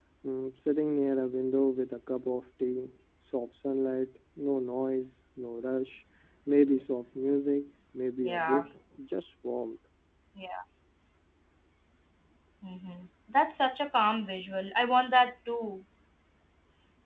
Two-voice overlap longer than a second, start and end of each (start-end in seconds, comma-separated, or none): none